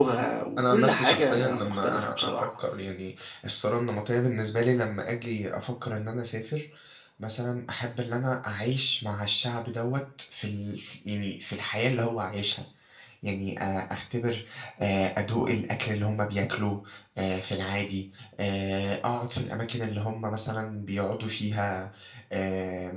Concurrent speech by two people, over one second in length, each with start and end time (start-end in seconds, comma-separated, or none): 0.6-2.5